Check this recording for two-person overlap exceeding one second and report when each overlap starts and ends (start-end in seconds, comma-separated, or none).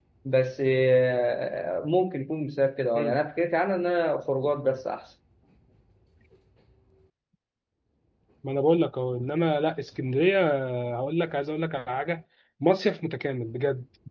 none